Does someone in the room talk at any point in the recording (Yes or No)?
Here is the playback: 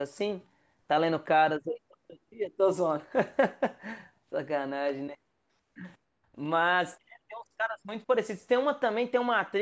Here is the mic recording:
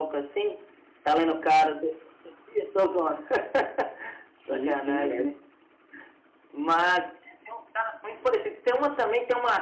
Yes